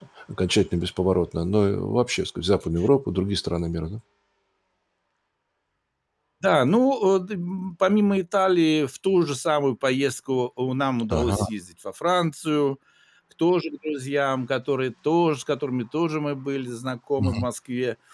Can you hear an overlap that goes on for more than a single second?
No

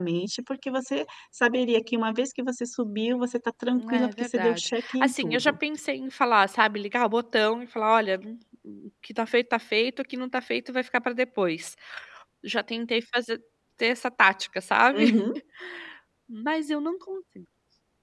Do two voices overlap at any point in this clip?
Yes, from 3.8 s

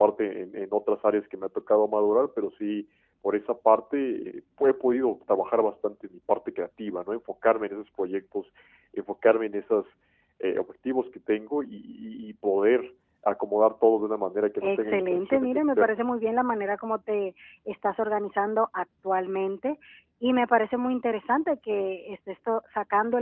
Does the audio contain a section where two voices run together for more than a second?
Yes, from 14.6 s

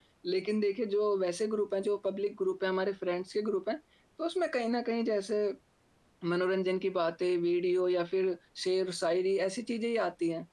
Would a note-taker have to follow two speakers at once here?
No

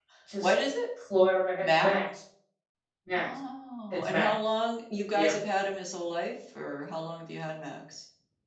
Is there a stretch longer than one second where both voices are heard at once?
No

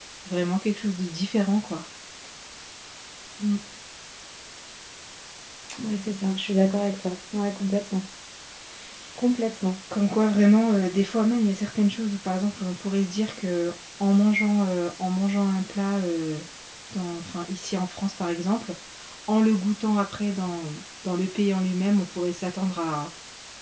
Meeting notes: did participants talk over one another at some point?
No

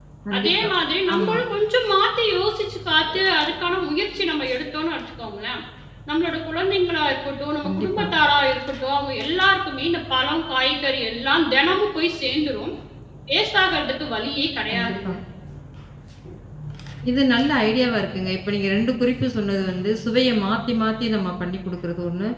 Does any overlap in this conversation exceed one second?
No

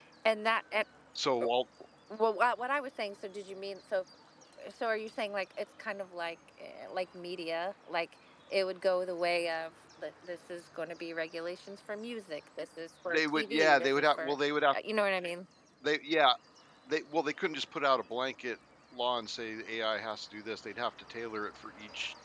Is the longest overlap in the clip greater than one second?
Yes, from 13.1 s

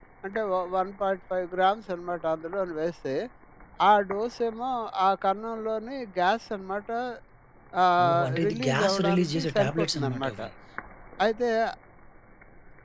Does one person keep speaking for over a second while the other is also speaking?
Yes, from 8.0 s

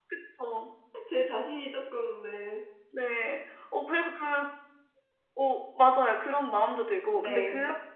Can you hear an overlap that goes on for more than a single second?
No

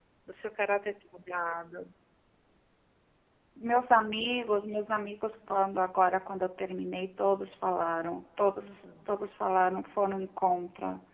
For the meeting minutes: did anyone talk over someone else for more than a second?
No

